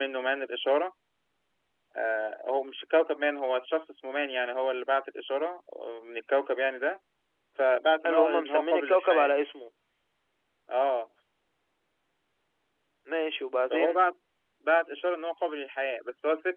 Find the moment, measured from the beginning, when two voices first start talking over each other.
8.1 s

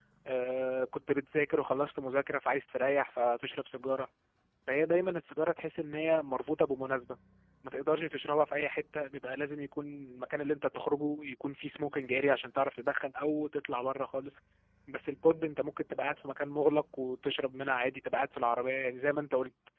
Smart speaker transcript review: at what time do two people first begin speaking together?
none

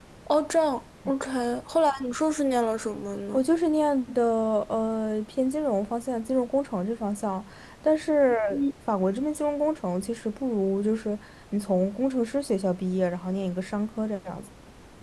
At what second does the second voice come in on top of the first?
none

